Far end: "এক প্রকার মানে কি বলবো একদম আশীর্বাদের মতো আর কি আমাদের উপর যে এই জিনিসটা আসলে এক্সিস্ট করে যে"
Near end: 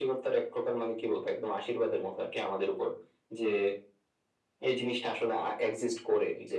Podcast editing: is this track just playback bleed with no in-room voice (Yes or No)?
Yes